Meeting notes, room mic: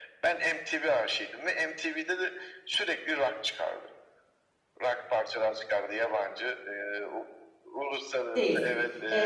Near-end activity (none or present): present